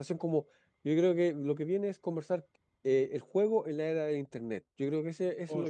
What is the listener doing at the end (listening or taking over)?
taking over